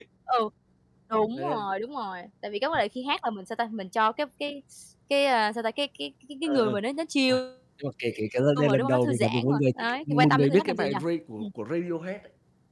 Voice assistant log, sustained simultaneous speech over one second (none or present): present